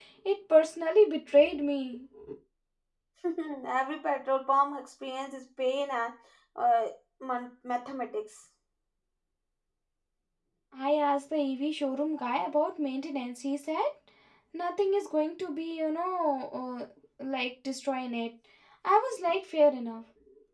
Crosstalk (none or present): none